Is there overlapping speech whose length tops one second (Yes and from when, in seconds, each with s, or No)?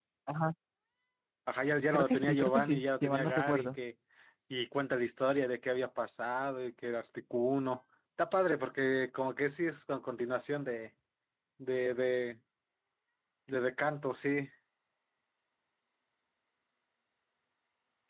Yes, from 1.9 s